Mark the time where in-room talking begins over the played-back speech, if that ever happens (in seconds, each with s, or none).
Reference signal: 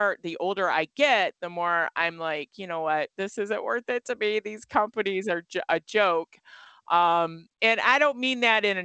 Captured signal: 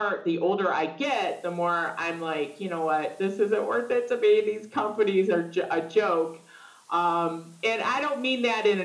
none